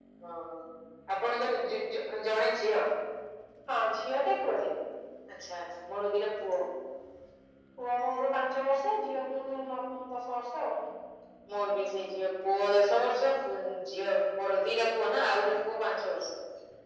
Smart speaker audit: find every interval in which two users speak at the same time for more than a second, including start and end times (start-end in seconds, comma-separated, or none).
none